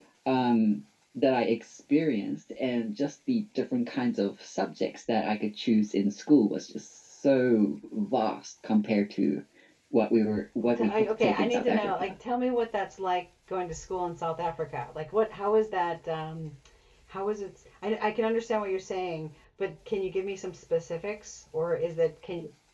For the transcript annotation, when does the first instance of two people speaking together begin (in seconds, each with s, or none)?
10.6 s